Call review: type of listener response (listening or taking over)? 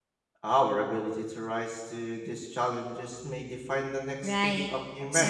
taking over